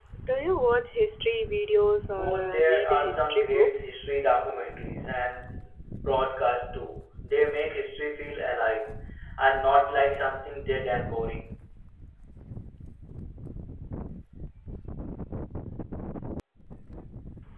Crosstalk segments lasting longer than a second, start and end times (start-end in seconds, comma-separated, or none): 2.1-3.7